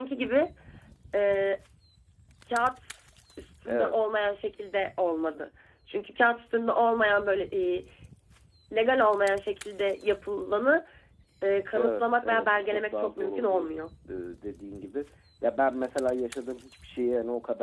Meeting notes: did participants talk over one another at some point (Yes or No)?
Yes